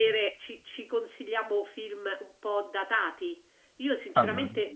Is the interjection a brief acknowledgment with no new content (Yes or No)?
Yes